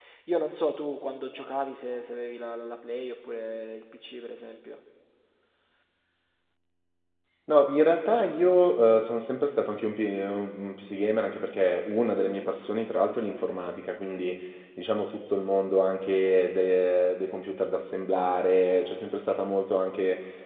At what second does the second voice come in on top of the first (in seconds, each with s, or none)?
none